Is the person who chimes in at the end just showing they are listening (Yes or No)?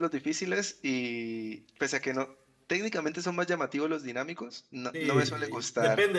No